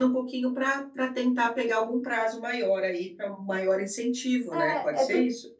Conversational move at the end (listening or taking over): taking over